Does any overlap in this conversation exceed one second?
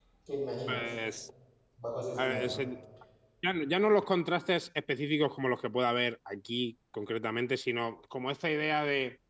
No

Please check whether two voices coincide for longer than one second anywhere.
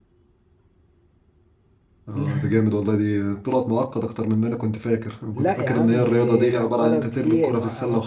Yes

